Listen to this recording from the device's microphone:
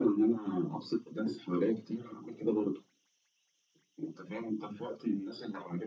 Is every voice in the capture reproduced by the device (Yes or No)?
Yes